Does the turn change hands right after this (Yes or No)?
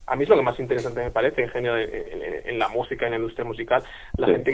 No